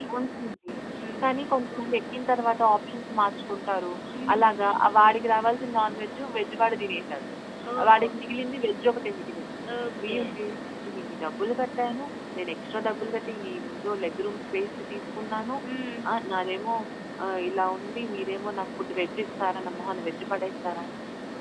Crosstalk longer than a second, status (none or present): none